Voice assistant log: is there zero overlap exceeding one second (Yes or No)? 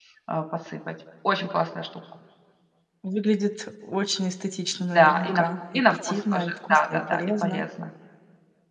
No